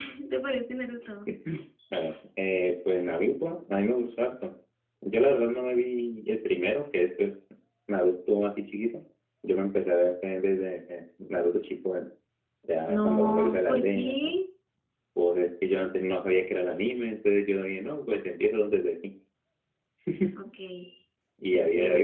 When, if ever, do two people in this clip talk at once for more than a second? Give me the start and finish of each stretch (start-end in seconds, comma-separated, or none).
12.9-14.3